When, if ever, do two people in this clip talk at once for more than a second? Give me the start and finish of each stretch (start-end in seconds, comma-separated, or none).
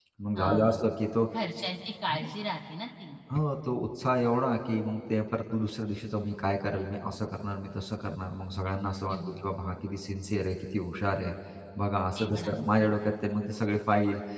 none